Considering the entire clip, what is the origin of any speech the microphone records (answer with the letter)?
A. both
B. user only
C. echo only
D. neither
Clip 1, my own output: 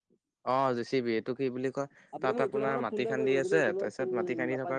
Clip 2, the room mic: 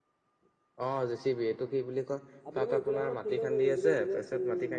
C